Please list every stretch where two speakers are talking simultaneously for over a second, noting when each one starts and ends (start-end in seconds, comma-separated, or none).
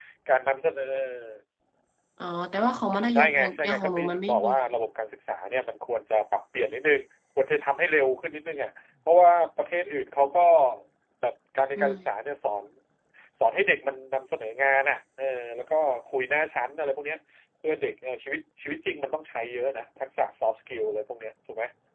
3.1-4.5